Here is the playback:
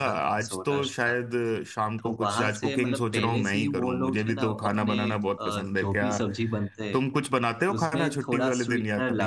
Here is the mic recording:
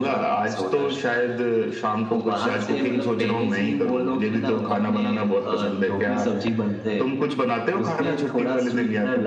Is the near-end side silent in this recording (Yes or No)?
Yes